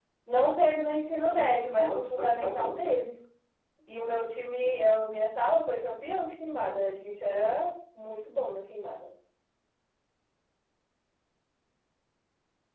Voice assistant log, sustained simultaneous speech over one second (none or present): present